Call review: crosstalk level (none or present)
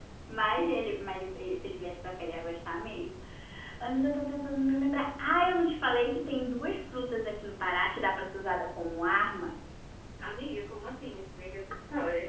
none